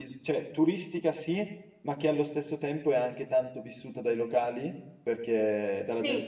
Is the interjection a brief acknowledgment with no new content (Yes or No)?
Yes